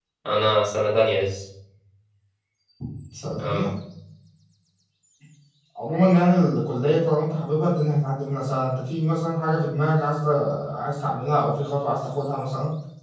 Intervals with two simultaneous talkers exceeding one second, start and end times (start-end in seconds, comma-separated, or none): none